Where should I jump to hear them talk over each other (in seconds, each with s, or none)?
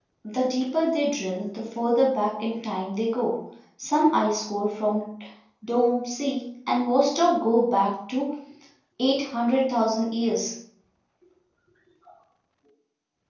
none